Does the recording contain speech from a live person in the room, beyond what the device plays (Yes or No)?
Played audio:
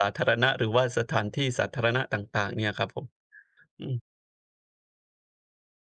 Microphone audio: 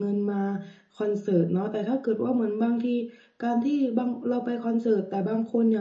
Yes